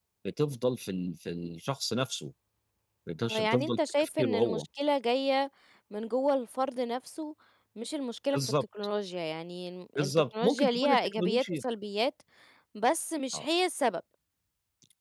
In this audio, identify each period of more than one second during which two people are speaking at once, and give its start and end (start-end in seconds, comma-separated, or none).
3.2-4.6, 10.0-11.6